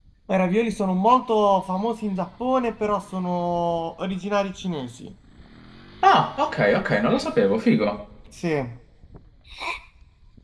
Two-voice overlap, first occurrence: none

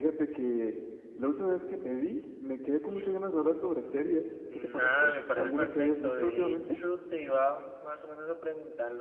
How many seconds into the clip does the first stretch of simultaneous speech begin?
4.5 s

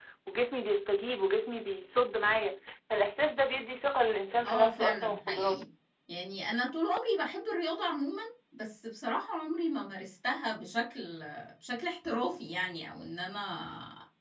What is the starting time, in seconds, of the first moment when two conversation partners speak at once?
4.4 s

